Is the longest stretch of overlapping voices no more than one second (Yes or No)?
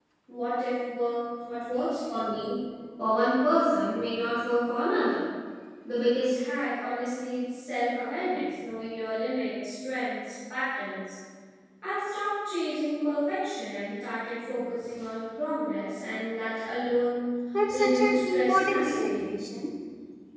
No